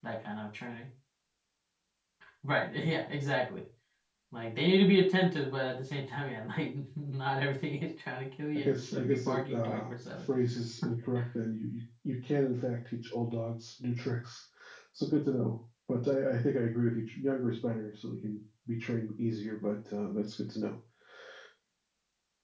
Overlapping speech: Yes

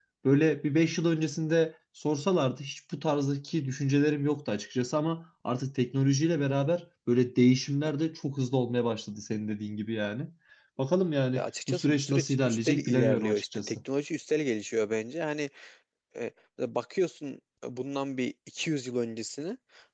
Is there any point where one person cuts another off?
Yes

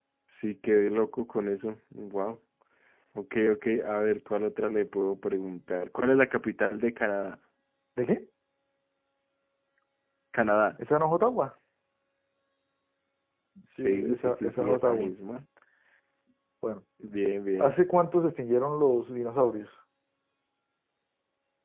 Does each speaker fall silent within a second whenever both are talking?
No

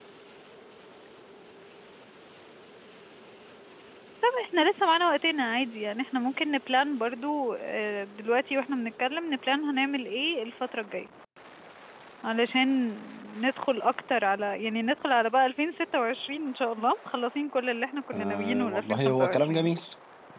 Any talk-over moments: Yes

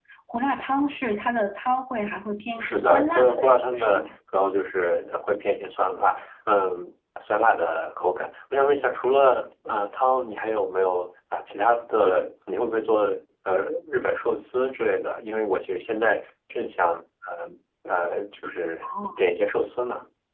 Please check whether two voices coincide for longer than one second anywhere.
Yes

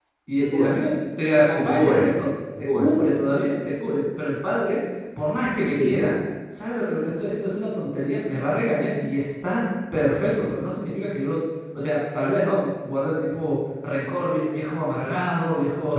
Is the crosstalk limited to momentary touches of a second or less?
Yes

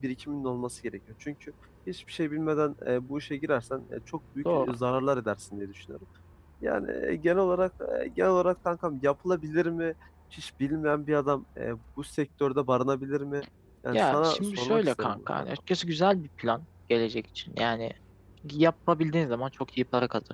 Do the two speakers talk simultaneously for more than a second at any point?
Yes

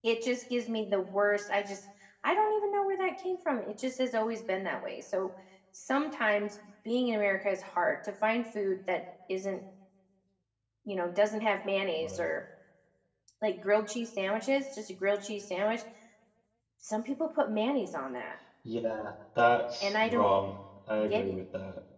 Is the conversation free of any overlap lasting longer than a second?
Yes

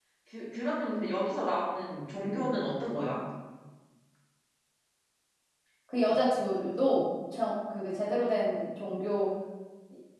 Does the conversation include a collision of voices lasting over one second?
No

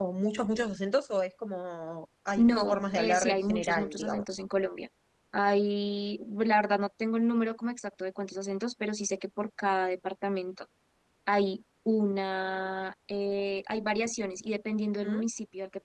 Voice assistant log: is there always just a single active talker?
No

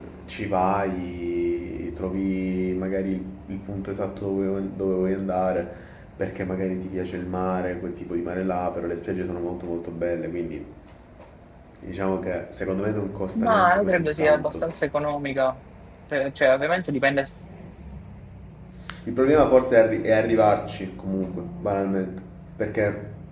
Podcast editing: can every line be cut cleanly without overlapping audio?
No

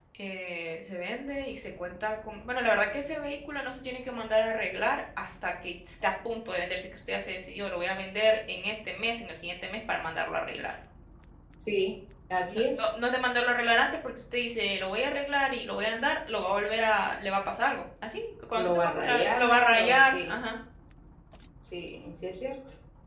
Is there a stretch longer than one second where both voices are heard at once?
Yes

